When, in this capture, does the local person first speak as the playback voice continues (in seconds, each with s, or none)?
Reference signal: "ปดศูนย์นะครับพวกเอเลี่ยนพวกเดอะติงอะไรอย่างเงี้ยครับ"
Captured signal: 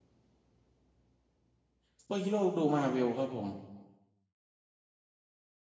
2.0 s